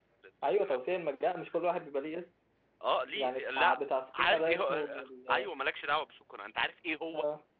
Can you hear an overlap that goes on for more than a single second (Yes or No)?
Yes